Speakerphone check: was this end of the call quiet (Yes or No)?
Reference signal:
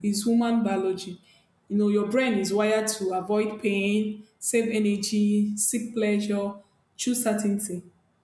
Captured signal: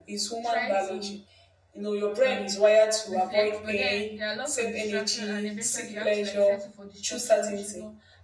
No